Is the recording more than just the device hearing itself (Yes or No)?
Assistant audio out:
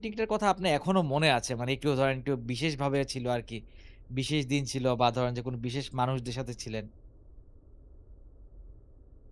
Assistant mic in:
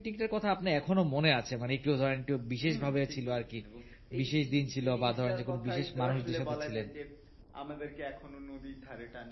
Yes